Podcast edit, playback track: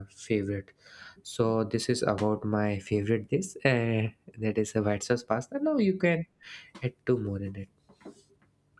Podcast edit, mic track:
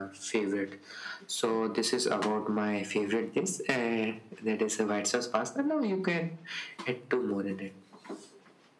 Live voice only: none

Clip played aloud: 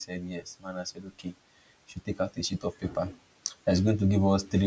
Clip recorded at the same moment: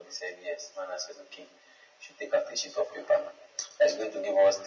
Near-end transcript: none

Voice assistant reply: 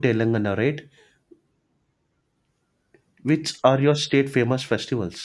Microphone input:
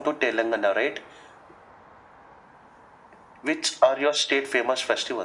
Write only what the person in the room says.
none

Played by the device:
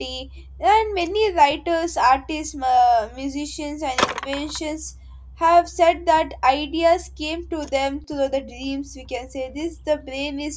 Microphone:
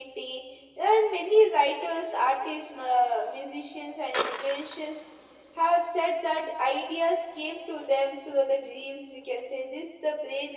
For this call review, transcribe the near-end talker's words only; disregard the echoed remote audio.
none

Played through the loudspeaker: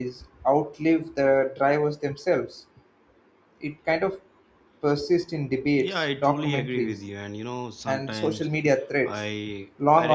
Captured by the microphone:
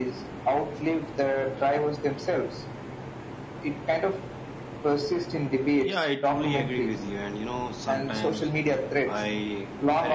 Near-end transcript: none

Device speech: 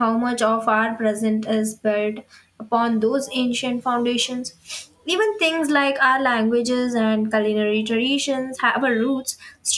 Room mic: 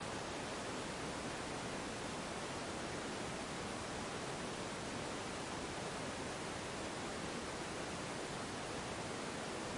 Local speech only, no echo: none

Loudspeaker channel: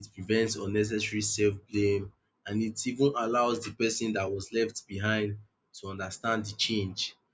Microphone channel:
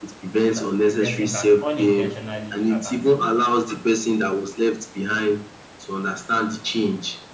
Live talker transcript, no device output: that a person can unintentionally abandon

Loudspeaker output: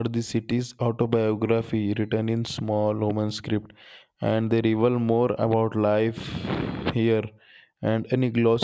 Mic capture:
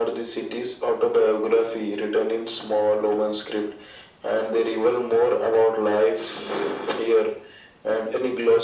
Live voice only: none

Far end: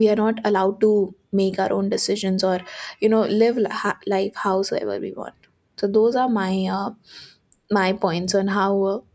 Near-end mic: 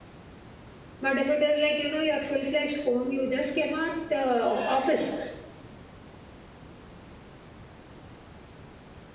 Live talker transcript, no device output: but if it is like you know your full-fledged home you just cannot uh, office

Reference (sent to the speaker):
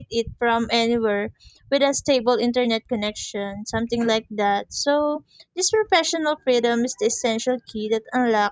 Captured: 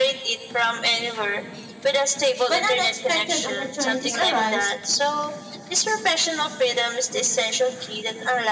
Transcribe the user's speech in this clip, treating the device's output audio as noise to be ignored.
when unexpected opportunities arise

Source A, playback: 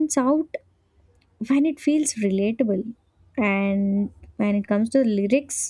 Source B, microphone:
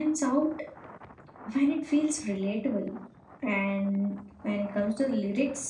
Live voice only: none

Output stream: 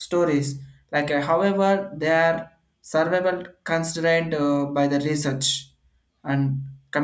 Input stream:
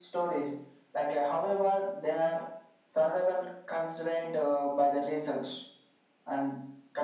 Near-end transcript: none

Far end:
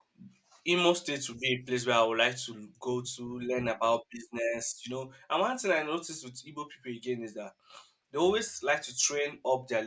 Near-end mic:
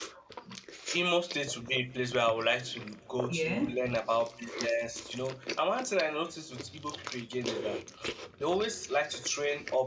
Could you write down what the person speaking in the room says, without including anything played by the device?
yeah

